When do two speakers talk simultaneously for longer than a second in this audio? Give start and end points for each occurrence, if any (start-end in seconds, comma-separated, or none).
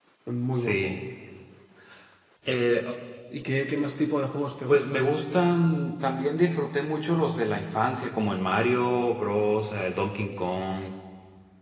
none